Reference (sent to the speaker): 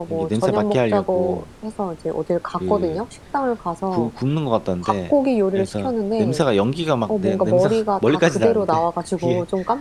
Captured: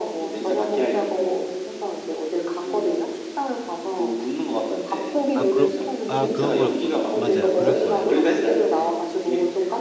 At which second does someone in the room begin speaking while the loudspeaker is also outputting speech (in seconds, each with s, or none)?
5.3 s